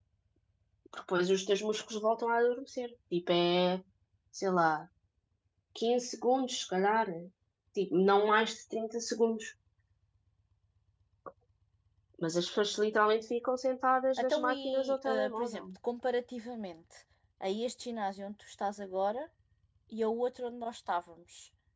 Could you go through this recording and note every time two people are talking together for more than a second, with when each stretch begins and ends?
14.2-15.6

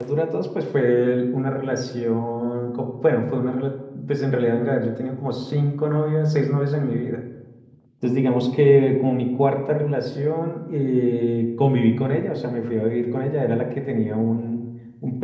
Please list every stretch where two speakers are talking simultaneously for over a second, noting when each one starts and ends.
none

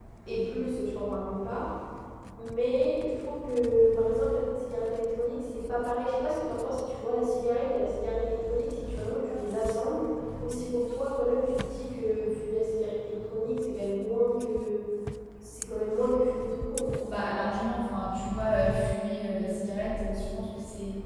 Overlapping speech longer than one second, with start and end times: none

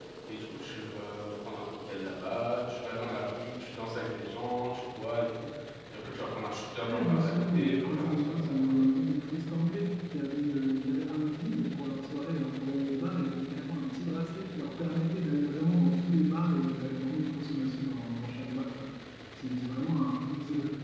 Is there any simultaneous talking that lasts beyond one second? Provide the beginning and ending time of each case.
6.8-8.8

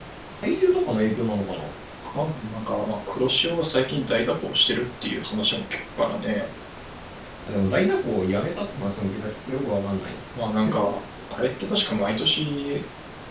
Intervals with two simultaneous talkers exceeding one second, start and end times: none

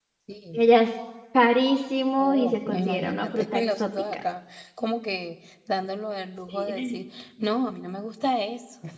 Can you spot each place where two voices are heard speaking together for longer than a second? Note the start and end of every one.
2.2-4.2

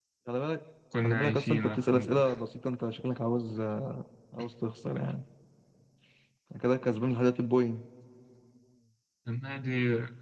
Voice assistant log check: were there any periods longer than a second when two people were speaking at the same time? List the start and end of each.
1.0-2.3

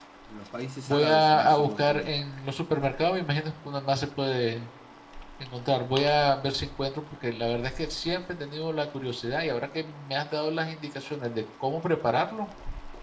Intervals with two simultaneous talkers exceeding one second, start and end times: 0.9-2.1

